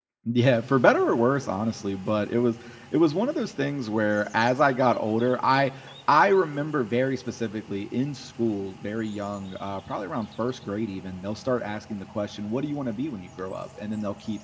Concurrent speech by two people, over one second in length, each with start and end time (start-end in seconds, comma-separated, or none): none